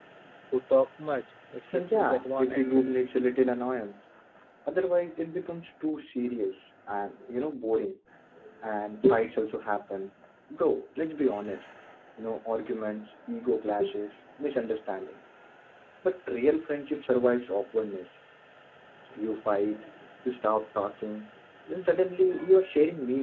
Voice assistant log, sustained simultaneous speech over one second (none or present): present